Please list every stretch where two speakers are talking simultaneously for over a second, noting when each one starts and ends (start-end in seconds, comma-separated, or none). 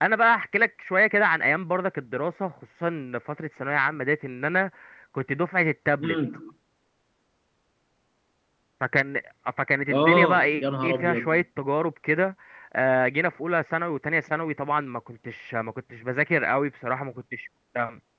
9.9-11.4